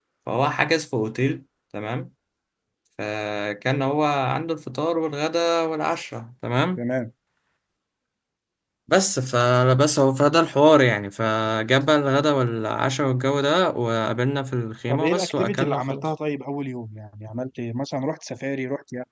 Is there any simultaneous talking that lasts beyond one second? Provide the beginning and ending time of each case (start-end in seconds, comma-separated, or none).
14.9-16.1